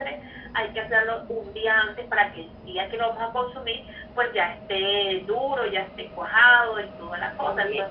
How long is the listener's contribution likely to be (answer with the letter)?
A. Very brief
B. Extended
B